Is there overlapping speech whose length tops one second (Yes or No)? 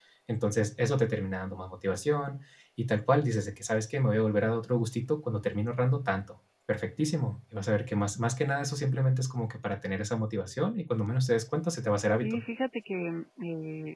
No